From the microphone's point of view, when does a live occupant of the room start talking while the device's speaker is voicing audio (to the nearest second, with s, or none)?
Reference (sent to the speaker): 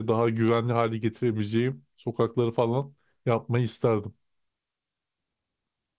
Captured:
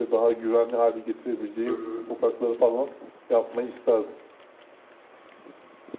2 s